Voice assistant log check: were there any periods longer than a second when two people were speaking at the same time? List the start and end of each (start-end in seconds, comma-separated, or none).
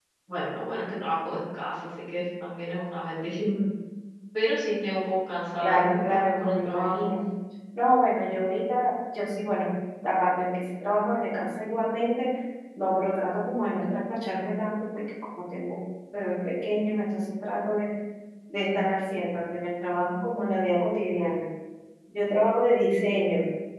5.6-7.1